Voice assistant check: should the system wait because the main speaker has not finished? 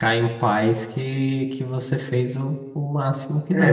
No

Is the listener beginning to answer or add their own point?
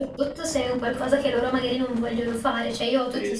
No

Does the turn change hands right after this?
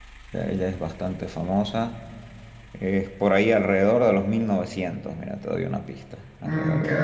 Yes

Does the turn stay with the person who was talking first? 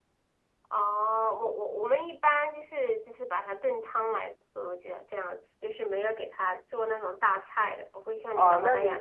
No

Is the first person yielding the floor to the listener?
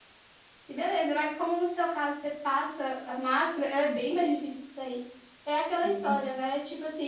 No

